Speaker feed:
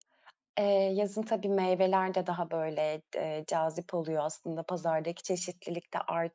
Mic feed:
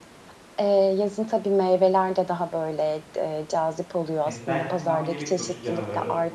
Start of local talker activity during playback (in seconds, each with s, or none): 4.2 s